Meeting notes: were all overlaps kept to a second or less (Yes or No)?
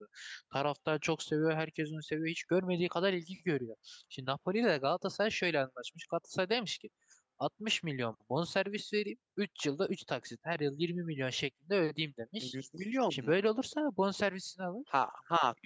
Yes